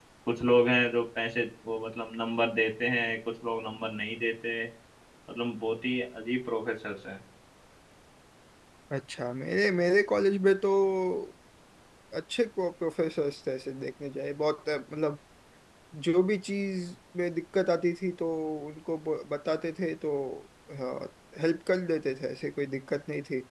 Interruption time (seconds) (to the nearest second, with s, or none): none